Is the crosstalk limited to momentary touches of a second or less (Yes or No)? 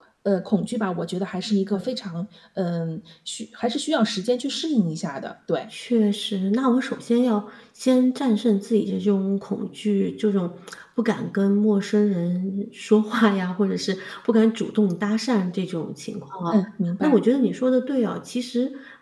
Yes